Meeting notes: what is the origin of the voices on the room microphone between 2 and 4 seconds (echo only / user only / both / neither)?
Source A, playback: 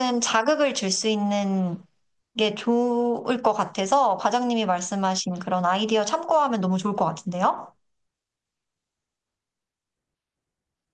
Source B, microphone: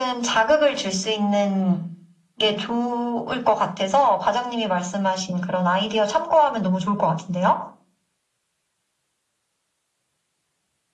echo only